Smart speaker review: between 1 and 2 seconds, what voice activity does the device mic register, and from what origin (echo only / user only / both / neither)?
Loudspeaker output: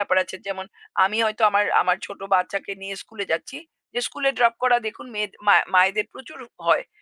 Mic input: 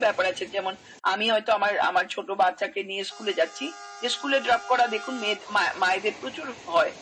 echo only